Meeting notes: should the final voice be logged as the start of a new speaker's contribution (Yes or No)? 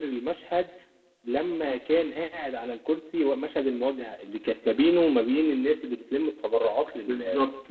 Yes